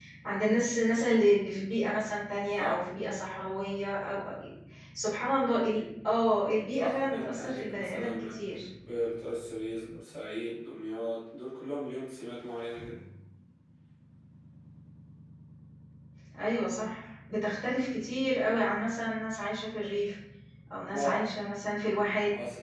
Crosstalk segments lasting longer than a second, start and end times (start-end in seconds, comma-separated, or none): 6.8-8.3